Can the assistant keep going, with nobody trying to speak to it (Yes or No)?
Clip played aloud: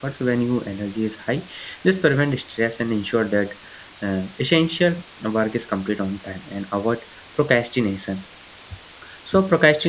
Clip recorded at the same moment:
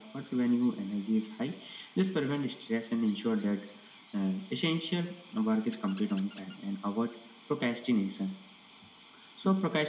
Yes